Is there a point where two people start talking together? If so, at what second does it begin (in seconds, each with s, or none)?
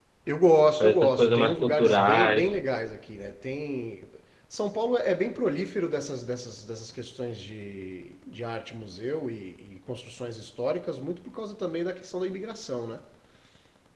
0.8 s